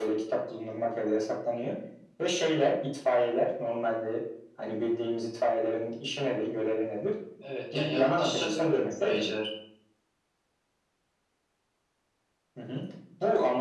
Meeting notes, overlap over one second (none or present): present